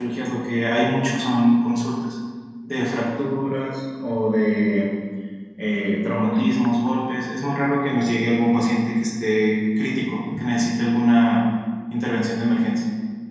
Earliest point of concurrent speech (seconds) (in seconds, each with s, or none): none